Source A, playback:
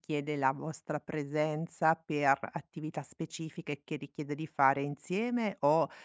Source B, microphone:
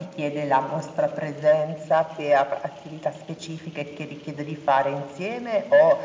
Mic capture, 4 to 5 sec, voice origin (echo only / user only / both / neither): echo only